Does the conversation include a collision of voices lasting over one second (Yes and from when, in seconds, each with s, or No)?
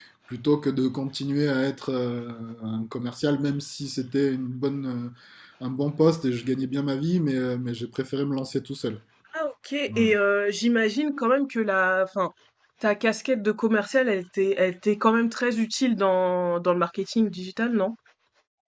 No